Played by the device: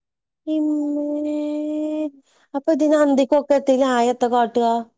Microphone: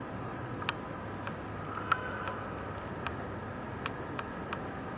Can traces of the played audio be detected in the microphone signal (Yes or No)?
No